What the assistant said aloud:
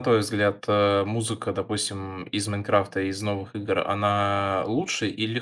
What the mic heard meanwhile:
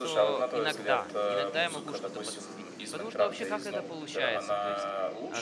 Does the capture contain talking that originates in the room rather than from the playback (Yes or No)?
Yes